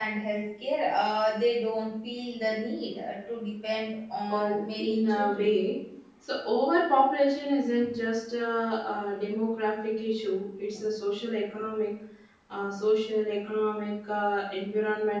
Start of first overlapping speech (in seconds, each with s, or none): 4.3 s